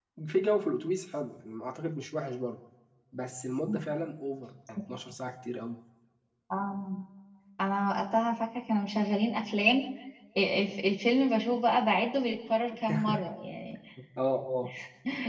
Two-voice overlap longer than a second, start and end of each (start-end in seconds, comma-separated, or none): none